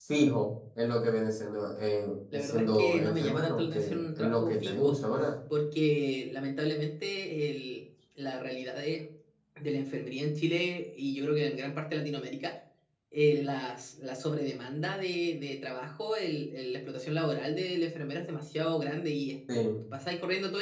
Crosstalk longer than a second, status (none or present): present